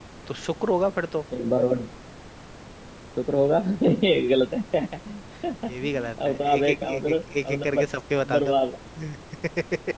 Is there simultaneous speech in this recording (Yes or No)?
Yes